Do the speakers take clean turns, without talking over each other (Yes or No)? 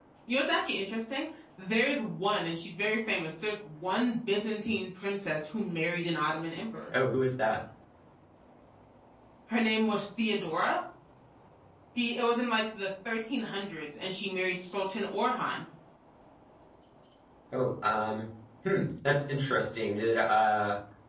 Yes